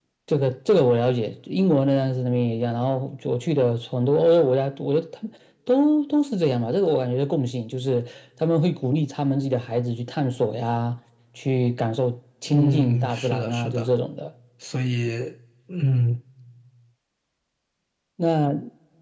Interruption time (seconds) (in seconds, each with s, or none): 12.5 s